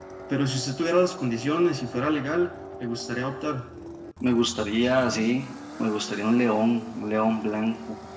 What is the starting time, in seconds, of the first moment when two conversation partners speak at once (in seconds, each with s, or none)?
none